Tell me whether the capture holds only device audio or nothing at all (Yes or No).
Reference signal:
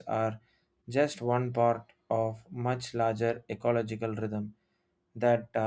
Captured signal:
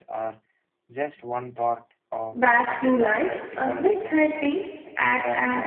No